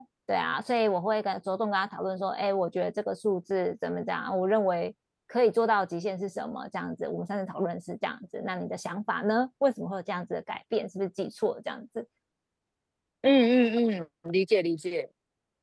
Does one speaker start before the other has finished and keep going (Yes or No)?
No